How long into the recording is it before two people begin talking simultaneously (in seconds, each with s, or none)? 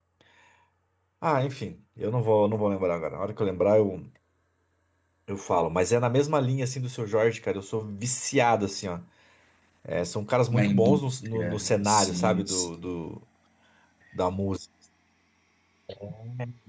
10.5 s